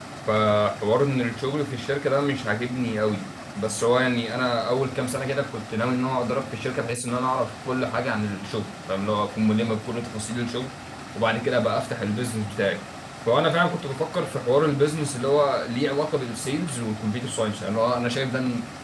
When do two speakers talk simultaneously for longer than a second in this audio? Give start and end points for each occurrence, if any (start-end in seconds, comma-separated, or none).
none